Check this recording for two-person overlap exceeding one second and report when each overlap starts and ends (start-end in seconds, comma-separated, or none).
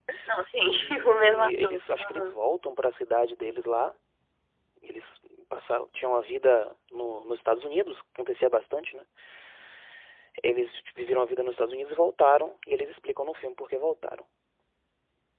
0.8-2.3